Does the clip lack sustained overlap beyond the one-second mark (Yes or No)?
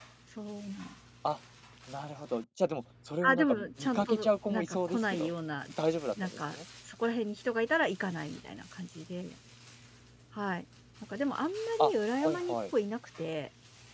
No